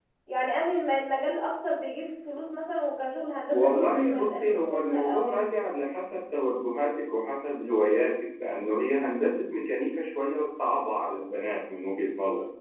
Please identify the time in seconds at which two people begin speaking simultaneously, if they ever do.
3.5 s

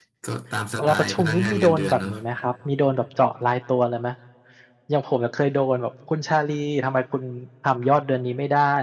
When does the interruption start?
0.8 s

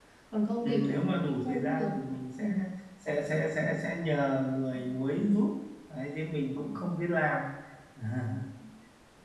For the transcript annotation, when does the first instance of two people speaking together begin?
0.6 s

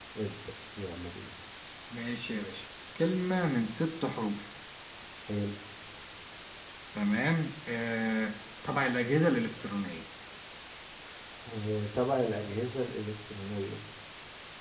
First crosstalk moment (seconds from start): none

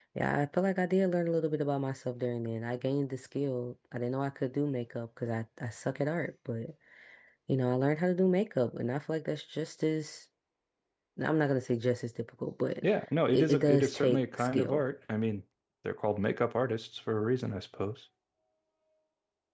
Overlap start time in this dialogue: 13.5 s

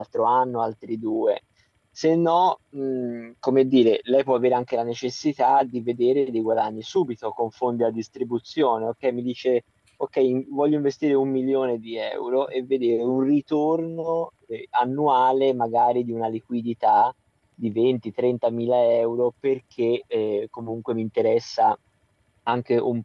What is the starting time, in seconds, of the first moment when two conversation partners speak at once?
none

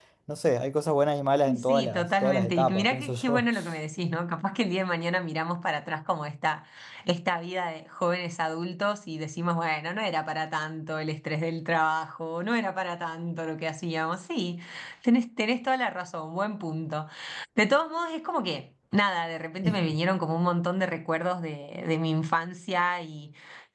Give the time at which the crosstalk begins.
1.7 s

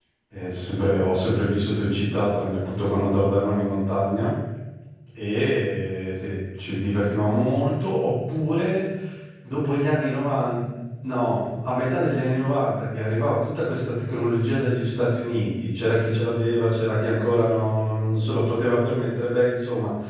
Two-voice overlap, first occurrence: none

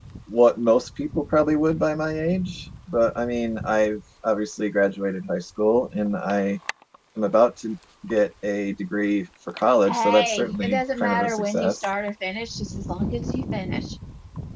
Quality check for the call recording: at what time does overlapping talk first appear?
9.9 s

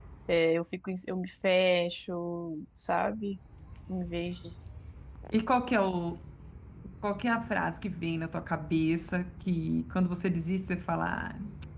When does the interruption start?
none

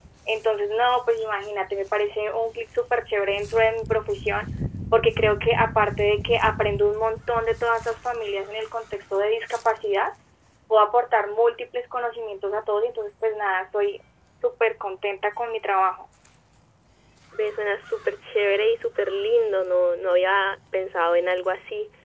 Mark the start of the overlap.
none

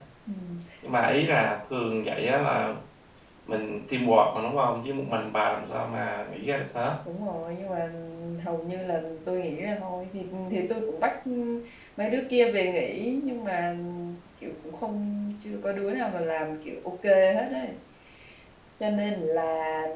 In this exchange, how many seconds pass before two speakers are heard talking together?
none

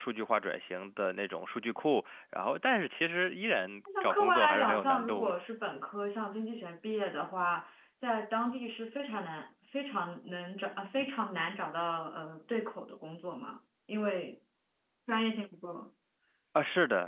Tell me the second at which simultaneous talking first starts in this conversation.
3.9 s

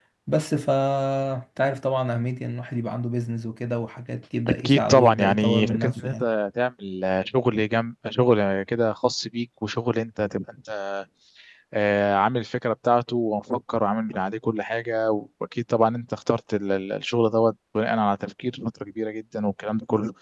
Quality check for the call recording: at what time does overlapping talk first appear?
4.5 s

